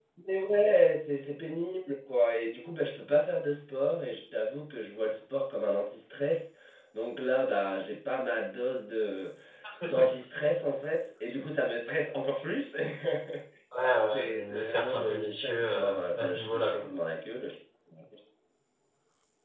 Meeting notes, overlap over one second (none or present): present